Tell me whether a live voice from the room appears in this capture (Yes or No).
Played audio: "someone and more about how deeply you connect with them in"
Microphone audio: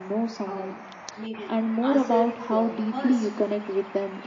Yes